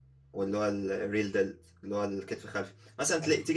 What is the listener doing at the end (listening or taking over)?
listening